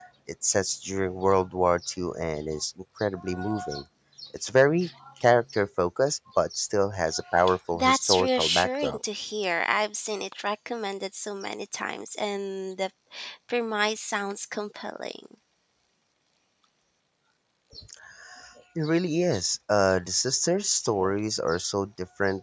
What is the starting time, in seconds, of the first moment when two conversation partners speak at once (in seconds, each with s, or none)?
7.7 s